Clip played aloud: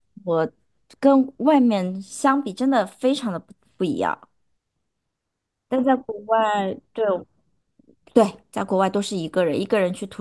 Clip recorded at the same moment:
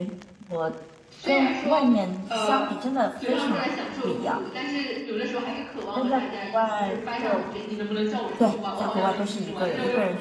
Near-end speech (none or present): present